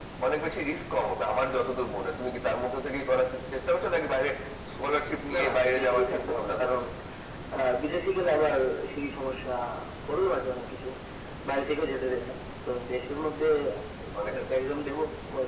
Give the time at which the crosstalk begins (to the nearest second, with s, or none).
5 s